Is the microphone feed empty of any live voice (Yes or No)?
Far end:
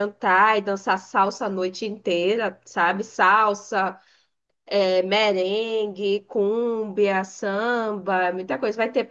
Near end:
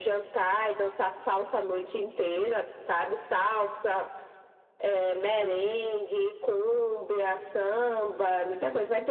Yes